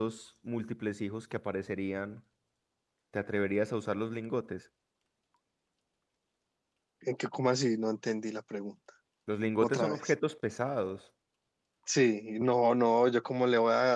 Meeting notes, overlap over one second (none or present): none